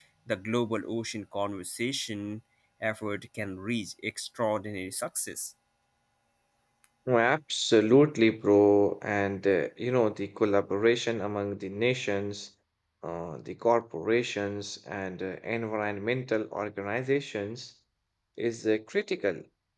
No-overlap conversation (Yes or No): Yes